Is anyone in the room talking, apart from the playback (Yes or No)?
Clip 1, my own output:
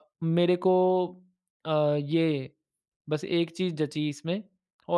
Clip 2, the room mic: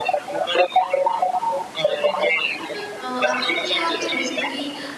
Yes